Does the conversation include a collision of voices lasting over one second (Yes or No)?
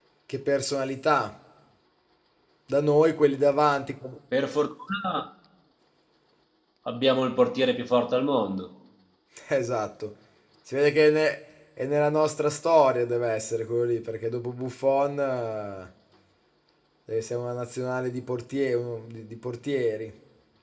No